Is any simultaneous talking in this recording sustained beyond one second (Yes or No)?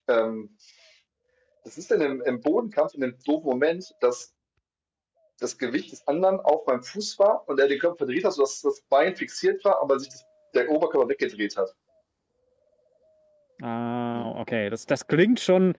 No